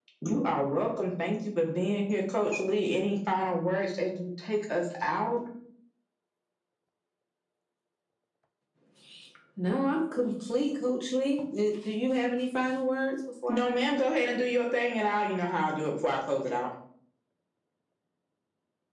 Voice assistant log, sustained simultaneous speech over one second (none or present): none